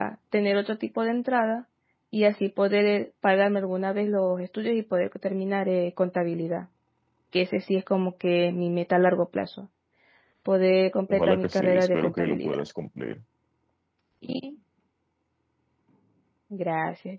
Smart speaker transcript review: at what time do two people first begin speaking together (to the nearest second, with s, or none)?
11 s